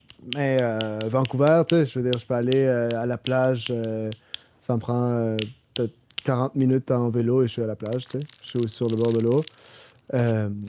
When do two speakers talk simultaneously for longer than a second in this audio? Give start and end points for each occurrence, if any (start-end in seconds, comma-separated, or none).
none